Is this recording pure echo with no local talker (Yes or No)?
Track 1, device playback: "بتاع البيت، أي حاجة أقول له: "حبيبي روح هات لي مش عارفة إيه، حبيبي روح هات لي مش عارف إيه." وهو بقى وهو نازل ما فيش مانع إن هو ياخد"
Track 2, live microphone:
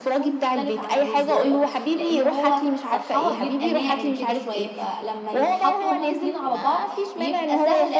No